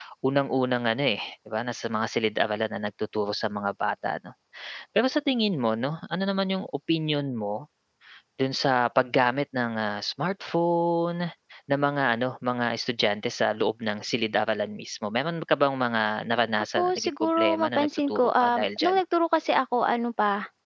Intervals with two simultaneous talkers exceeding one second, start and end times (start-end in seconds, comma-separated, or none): 16.8-18.9